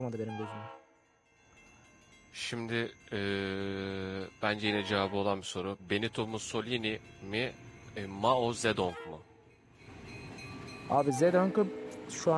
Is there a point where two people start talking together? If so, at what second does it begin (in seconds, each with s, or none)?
none